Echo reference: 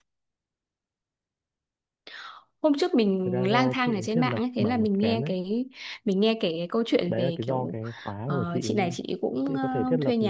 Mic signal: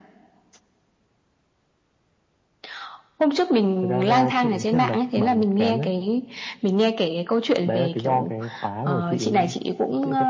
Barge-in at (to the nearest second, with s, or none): none